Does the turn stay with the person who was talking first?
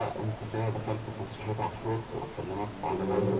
Yes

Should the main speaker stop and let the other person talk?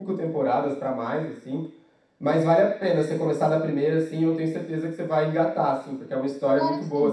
No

